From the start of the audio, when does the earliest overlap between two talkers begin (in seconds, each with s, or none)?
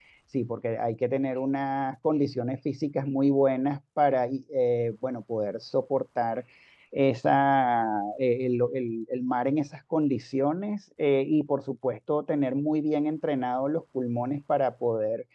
none